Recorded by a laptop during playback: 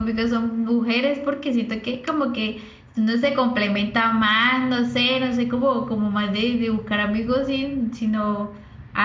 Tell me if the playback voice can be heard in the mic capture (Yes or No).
No